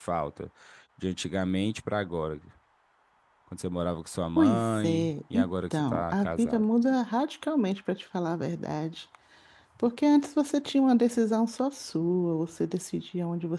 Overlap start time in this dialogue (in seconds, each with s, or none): 4.3 s